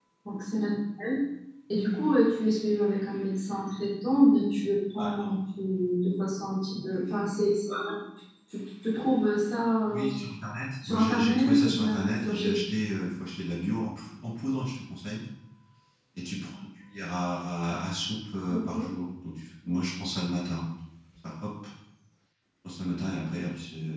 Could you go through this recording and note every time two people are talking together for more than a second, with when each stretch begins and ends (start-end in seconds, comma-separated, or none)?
10.8-12.5